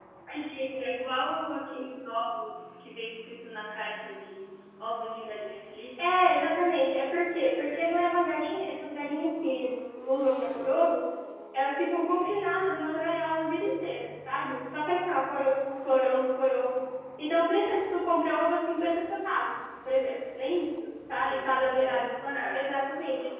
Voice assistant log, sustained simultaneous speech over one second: none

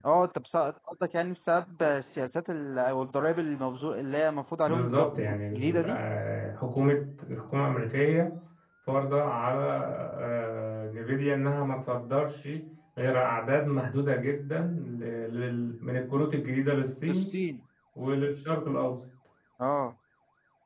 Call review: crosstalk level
present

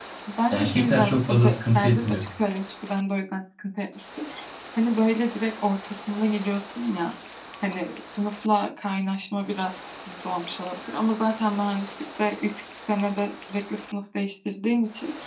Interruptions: present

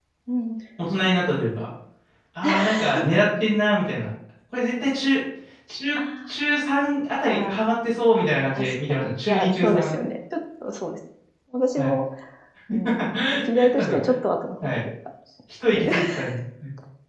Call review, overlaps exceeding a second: present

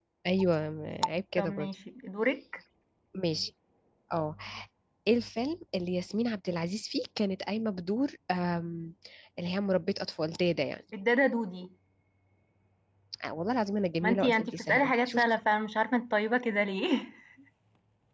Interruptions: present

